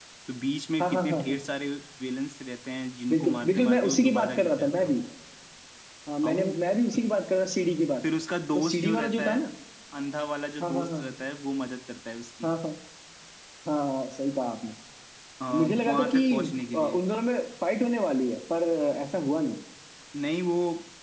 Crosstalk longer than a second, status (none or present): present